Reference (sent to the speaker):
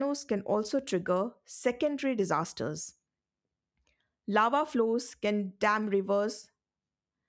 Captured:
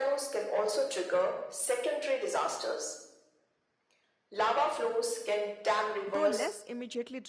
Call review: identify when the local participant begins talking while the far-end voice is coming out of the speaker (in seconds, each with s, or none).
6.1 s